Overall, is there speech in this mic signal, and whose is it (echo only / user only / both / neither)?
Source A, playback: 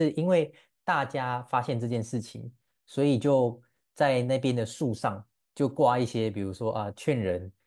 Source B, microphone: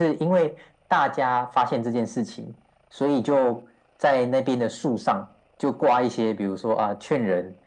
echo only